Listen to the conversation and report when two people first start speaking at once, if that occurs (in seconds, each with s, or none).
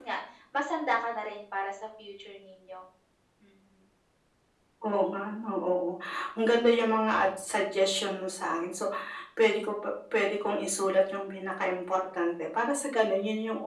none